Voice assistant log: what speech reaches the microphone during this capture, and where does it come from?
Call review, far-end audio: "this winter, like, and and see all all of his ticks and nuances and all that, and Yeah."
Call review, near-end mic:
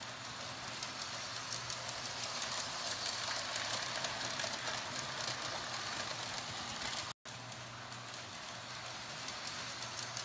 neither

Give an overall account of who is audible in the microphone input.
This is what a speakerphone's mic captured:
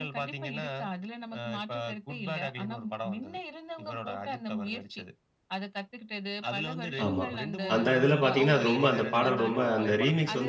both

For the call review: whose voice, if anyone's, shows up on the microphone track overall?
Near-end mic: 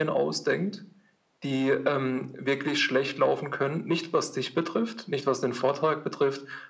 echo only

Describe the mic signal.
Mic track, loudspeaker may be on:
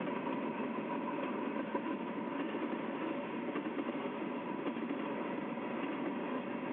neither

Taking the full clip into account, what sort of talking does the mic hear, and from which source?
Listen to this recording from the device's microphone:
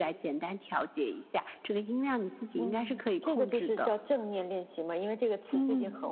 echo only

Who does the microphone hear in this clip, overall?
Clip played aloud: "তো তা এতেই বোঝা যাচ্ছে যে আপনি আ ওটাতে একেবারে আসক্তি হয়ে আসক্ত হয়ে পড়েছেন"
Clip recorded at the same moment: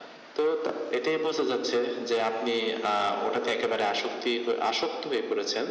echo only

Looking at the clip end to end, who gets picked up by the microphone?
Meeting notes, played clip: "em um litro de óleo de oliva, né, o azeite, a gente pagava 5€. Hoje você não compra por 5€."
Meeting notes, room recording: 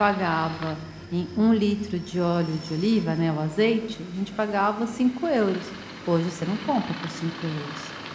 echo only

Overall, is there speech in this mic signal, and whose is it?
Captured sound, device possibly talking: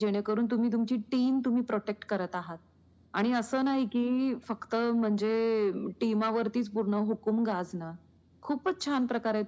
echo only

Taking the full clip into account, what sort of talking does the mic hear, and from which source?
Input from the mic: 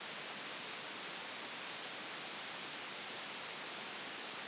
neither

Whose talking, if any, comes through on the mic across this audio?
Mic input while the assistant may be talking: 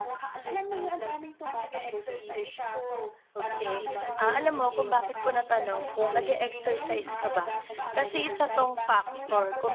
both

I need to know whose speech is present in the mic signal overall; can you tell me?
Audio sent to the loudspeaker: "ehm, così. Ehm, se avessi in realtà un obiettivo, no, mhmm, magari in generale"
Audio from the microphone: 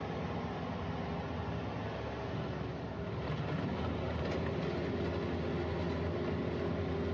neither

